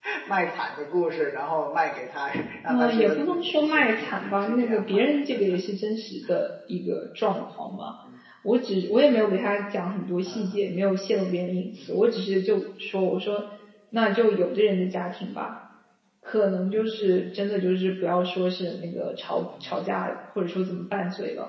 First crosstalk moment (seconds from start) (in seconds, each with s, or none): 2.7 s